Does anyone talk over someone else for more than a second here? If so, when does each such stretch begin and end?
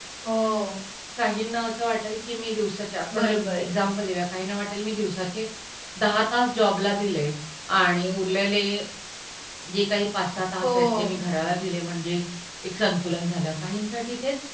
none

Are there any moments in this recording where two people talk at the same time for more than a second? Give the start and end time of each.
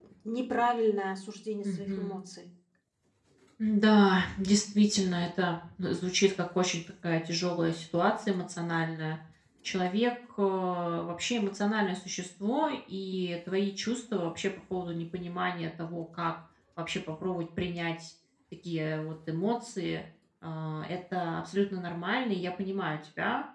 none

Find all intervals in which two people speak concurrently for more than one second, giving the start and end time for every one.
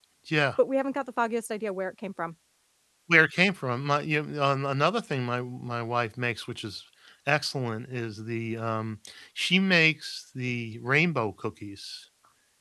none

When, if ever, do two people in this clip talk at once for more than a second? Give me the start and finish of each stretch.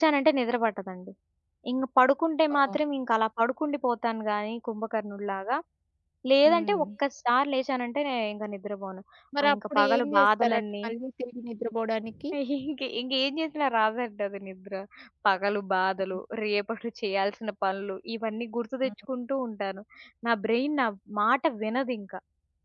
9.4-10.6

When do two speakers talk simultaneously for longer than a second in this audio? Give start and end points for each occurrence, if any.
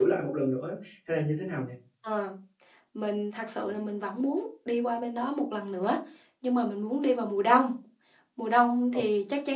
none

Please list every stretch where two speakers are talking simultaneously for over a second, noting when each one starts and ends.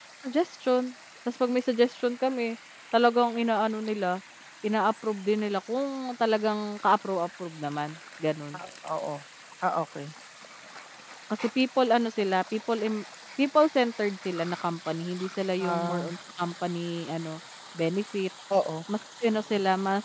none

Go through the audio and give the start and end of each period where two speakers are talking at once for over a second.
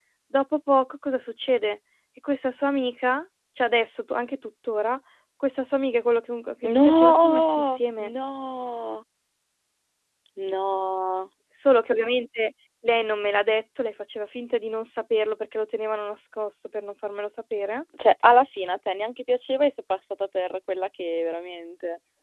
6.6-8.1

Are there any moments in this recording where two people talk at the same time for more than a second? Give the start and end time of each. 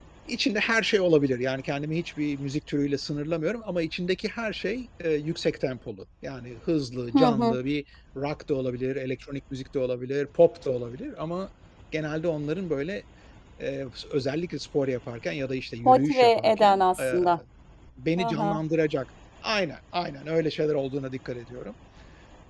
15.8-17.2

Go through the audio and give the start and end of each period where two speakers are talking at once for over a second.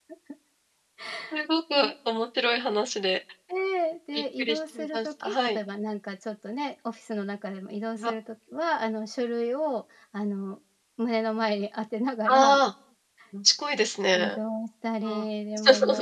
4.1-5.6

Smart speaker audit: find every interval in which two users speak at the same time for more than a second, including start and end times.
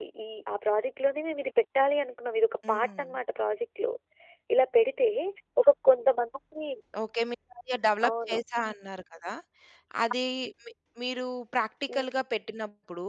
none

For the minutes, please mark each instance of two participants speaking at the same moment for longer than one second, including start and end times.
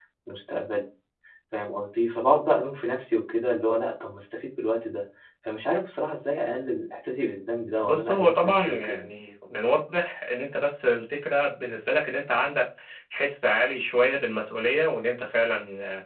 7.8-9.1

